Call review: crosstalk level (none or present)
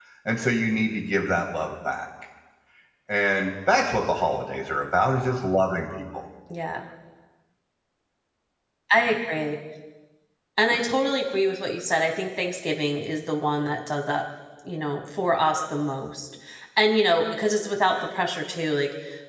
none